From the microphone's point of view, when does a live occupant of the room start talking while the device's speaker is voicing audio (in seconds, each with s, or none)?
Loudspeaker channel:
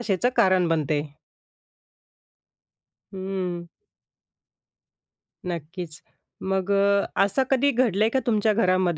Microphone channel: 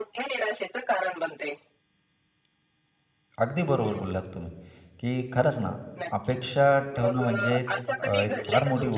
3.4 s